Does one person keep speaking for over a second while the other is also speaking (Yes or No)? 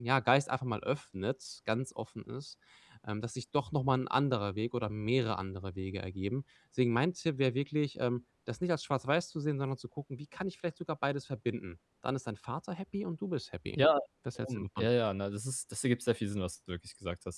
No